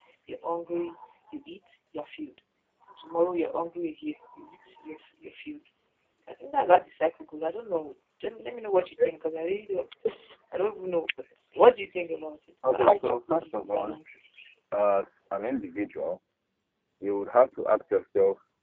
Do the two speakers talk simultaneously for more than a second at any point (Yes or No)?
Yes